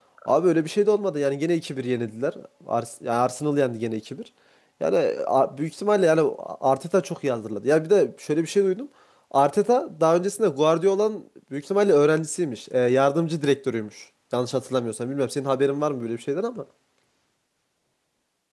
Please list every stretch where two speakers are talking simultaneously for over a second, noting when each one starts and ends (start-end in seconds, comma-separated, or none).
none